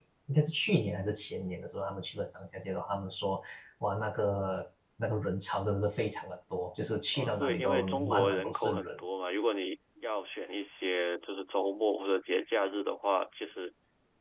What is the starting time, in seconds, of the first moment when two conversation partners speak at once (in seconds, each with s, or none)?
7.1 s